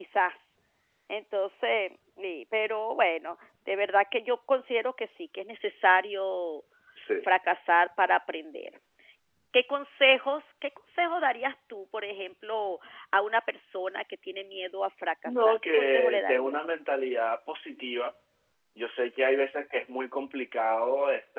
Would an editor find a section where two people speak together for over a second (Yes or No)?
Yes